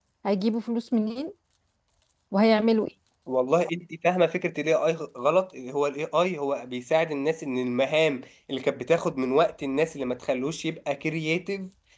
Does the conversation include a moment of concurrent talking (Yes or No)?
No